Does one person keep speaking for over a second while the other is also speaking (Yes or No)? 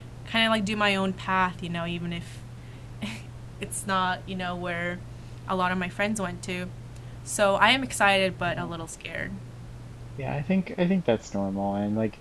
No